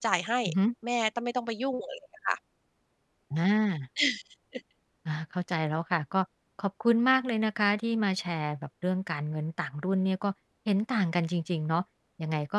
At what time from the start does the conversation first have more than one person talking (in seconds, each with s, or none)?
none